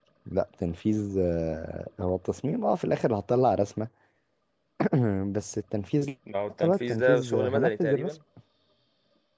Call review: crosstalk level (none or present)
present